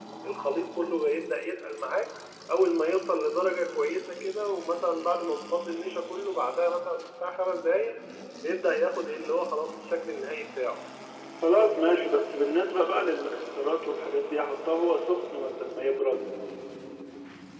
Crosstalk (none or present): none